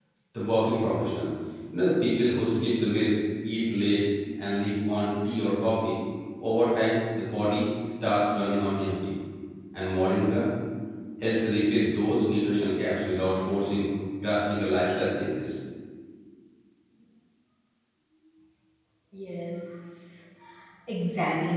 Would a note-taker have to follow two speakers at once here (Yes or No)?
No